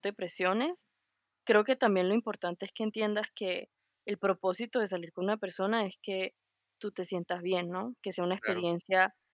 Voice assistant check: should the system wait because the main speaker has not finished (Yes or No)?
Yes